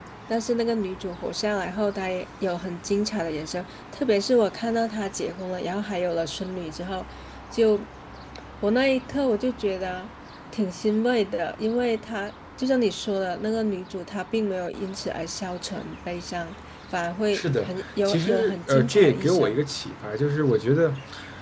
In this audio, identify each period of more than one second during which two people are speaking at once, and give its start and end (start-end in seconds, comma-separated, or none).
17.3-19.6